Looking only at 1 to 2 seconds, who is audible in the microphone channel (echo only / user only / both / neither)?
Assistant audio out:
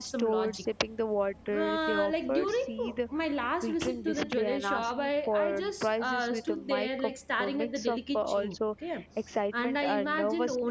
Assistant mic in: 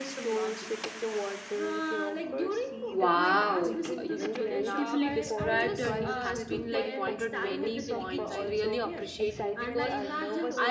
echo only